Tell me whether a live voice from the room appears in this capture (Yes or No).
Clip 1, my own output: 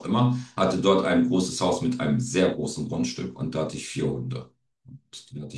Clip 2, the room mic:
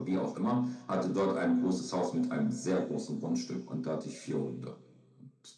No